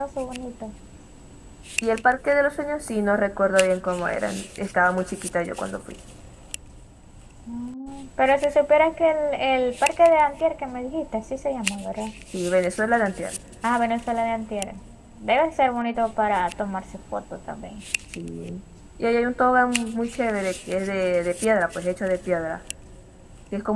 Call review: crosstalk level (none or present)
none